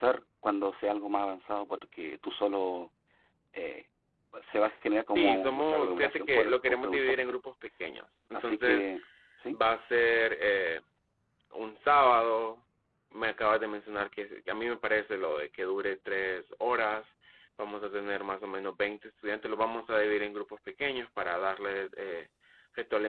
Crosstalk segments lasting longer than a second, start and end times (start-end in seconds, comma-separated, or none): 5.2-7.2